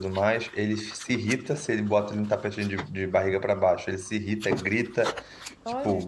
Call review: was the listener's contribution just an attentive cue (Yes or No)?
Yes